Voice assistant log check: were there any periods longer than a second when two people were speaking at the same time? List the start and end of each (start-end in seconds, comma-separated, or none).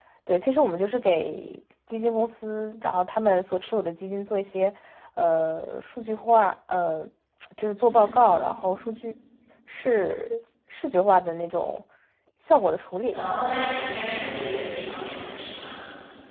none